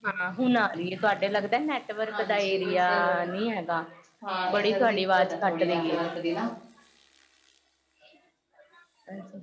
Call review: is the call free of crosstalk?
No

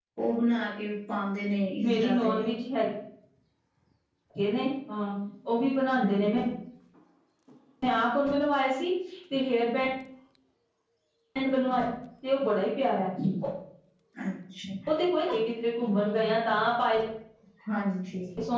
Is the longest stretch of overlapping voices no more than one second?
Yes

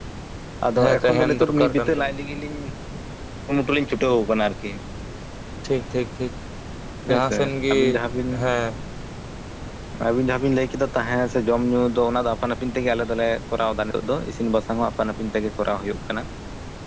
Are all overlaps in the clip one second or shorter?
No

